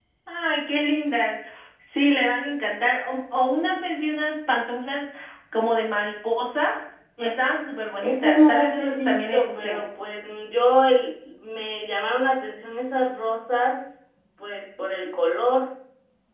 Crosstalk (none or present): present